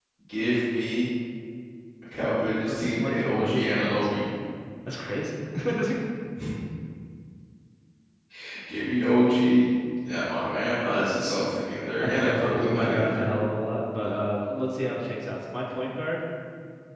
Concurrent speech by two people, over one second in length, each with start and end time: 2.7-4.2, 12.0-13.2

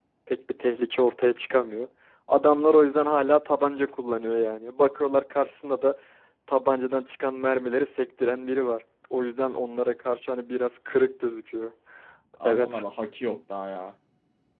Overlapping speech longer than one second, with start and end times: none

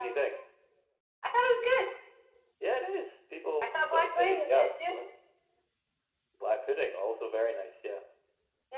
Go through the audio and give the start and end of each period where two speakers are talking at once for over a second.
3.6-5.0

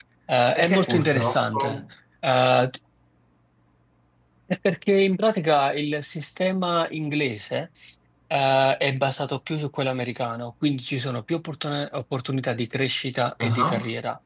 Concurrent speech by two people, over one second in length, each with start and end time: 0.6-1.8

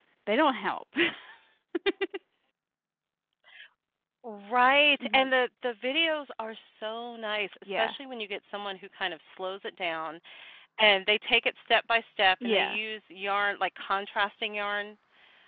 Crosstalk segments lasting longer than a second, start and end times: none

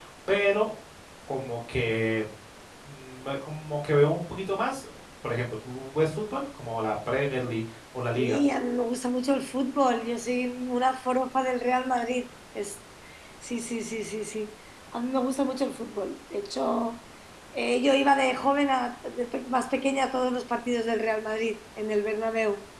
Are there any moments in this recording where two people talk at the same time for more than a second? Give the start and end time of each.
none

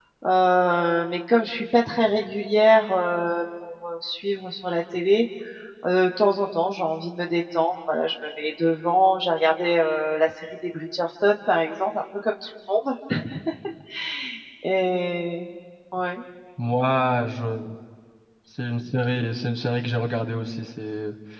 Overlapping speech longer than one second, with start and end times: none

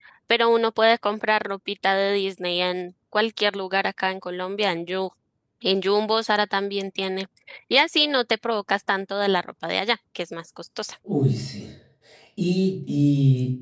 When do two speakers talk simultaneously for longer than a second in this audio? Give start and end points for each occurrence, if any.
none

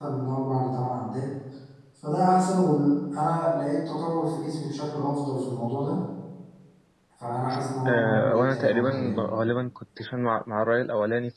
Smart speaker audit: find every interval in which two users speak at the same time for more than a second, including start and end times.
7.9-9.2

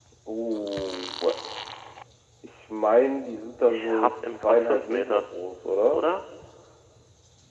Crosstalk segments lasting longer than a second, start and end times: 3.7-5.2

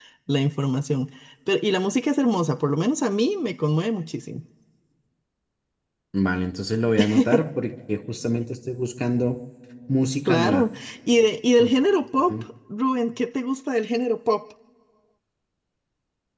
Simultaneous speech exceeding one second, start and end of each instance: none

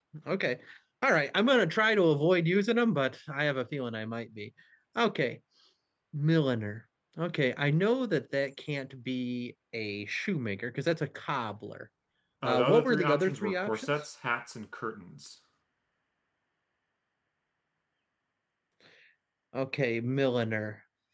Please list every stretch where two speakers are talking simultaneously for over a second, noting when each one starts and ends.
12.4-13.9

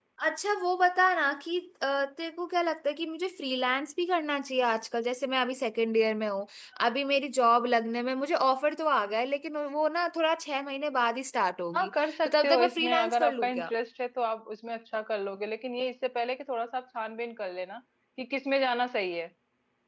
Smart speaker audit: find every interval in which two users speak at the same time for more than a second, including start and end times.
11.7-13.7

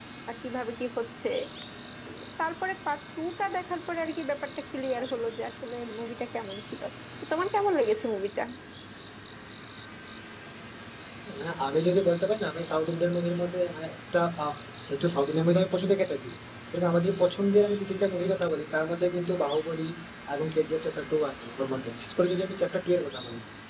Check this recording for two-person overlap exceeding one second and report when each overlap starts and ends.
none

